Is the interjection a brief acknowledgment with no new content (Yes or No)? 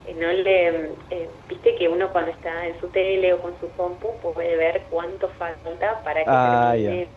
Yes